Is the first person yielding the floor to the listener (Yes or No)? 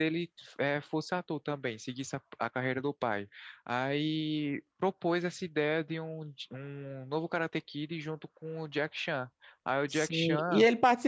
Yes